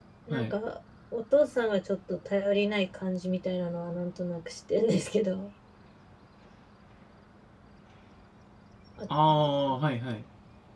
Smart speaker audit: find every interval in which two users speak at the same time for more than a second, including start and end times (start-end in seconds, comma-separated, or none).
none